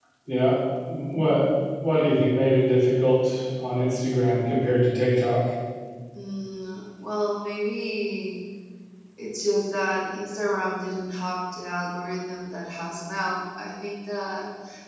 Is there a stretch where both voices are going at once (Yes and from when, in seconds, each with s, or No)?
No